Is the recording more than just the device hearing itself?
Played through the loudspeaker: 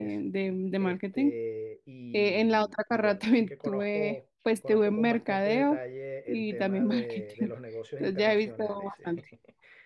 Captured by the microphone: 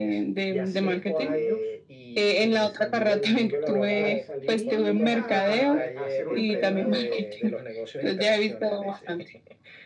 Yes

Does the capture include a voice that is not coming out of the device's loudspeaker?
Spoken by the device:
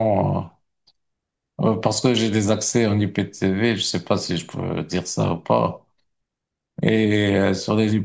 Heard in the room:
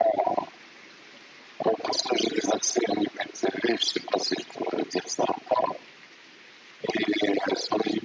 No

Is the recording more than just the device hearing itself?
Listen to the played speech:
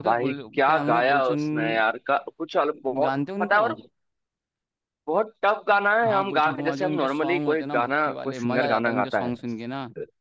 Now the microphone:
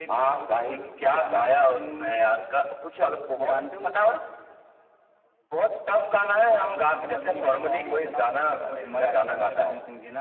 No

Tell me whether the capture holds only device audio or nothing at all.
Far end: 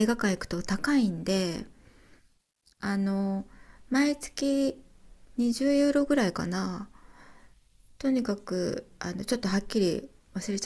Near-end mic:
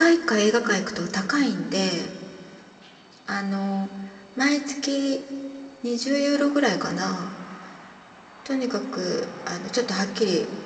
Yes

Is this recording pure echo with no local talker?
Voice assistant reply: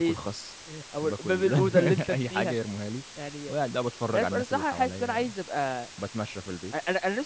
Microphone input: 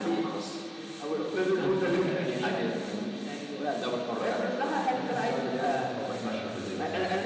No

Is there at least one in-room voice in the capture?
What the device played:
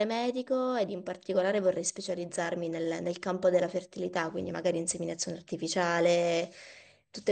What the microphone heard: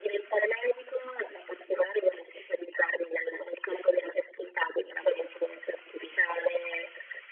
No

